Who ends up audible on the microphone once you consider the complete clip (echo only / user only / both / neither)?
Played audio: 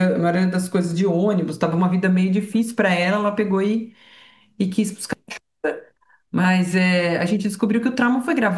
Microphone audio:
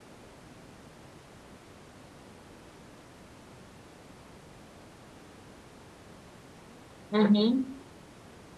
user only